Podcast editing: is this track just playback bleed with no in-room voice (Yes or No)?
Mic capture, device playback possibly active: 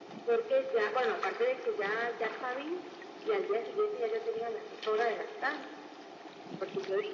Yes